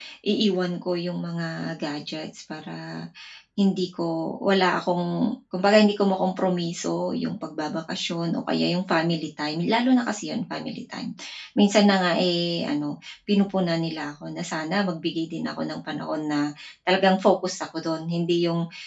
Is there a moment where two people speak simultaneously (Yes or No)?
No